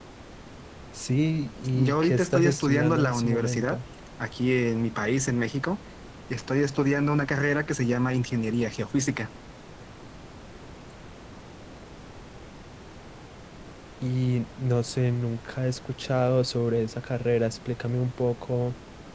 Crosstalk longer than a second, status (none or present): present